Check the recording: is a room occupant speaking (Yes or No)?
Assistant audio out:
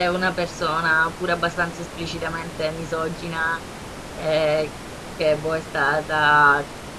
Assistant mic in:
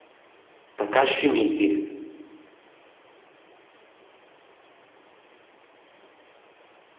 Yes